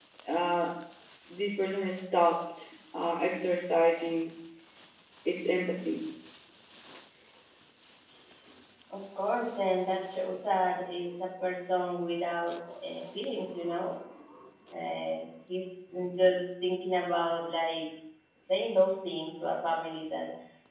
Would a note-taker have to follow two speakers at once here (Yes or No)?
No